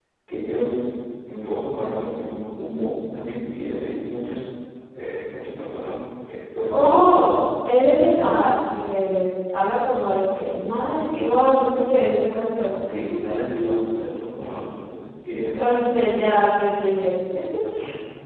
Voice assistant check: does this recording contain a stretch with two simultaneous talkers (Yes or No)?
Yes